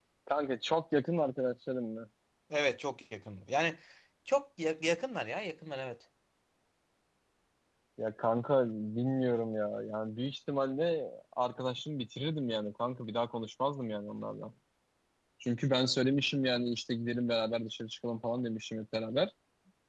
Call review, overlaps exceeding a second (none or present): none